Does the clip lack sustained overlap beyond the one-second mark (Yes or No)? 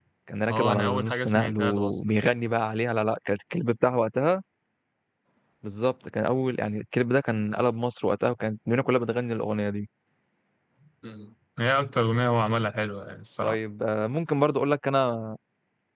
No